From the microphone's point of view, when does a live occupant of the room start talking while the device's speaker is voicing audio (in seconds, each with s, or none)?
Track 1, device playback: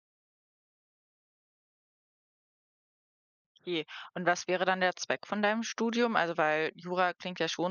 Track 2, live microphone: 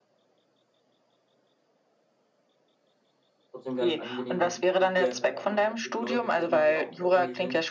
3.5 s